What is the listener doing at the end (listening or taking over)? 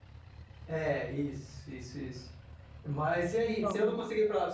listening